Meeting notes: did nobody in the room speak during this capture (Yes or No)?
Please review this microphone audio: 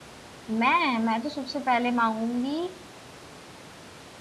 No